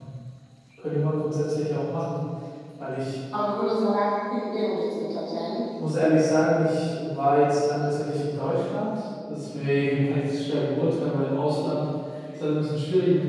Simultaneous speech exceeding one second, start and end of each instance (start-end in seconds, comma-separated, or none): none